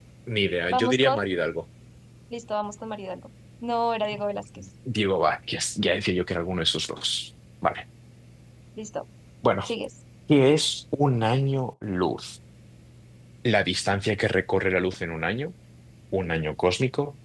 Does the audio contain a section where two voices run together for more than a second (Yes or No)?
No